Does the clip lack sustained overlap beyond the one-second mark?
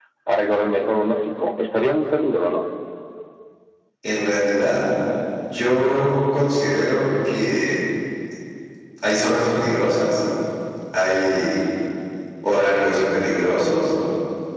Yes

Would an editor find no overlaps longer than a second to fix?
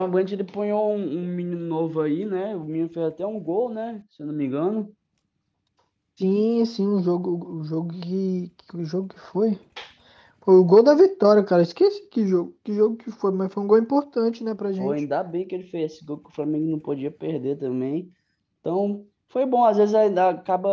Yes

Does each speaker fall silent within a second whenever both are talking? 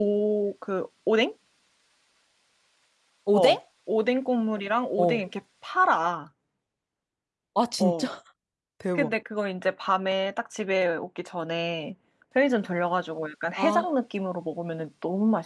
Yes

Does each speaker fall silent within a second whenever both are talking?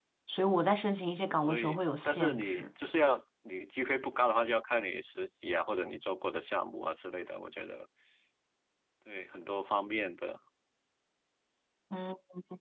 No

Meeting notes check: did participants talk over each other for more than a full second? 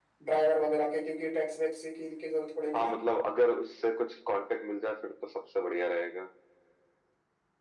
No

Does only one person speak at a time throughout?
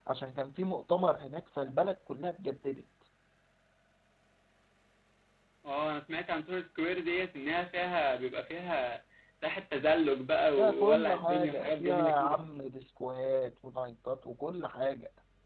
No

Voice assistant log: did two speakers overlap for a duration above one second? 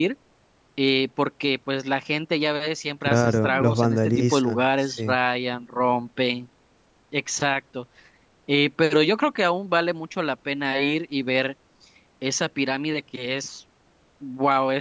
Yes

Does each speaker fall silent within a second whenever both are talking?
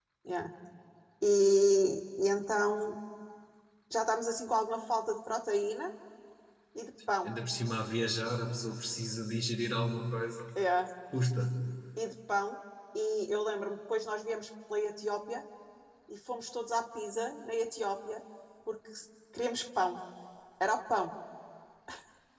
Yes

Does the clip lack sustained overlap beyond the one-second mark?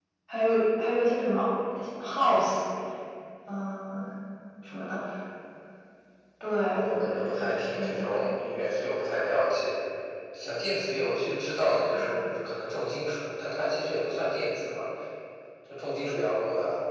No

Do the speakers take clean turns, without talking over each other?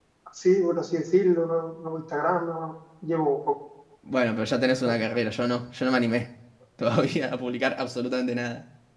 Yes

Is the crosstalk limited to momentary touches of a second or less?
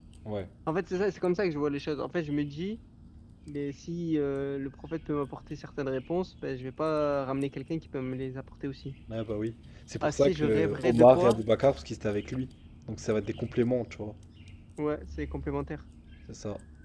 No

